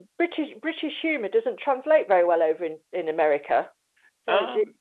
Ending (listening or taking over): listening